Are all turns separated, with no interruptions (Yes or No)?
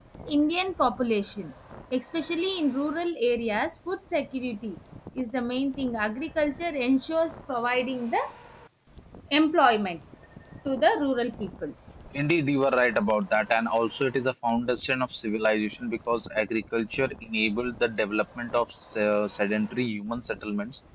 Yes